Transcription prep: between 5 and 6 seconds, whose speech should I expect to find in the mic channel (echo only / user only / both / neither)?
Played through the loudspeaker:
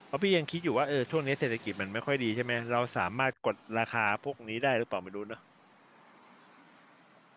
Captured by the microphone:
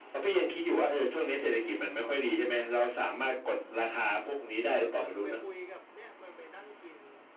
both